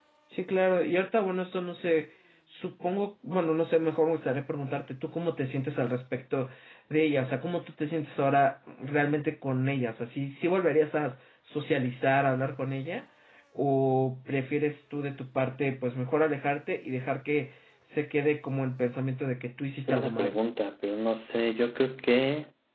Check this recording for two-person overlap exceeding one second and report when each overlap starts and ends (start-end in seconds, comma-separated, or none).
none